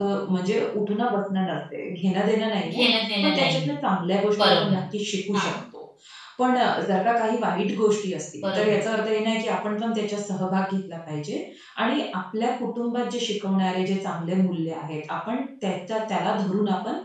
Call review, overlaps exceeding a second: none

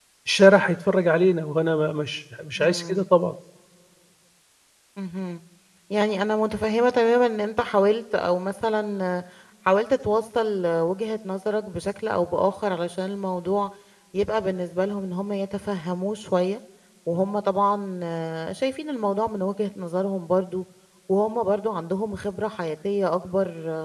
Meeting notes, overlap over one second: none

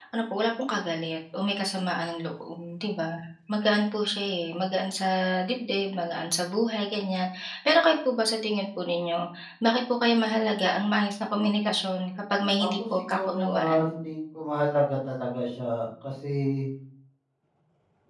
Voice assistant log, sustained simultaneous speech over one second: present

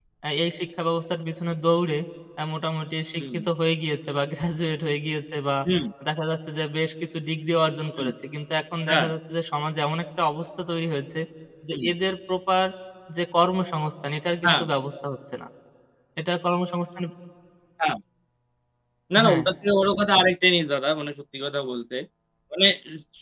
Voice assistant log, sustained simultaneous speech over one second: none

